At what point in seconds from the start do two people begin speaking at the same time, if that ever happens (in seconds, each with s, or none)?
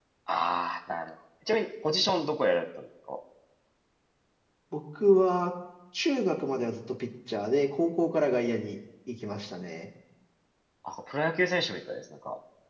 none